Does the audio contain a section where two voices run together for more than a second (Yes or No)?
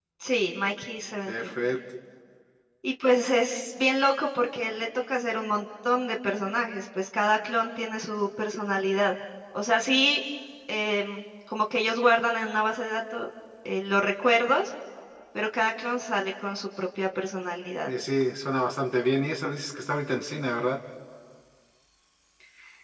No